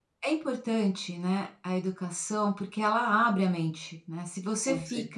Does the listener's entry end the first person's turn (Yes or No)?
No